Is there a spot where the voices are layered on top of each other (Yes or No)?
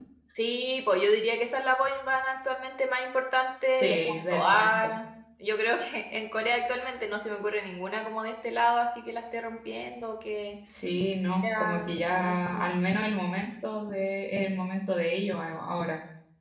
Yes